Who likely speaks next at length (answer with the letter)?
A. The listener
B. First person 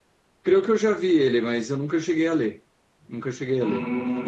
A